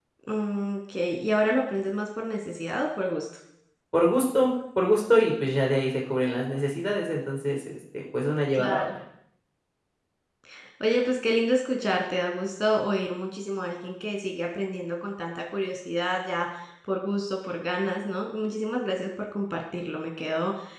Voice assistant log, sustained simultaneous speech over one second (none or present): none